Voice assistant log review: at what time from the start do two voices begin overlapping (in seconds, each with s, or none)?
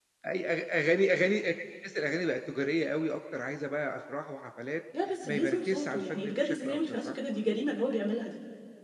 5.2 s